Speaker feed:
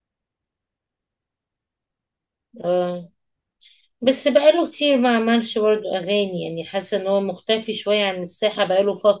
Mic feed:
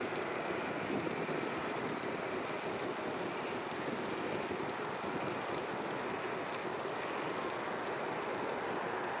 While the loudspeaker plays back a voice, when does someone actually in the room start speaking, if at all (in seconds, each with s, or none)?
none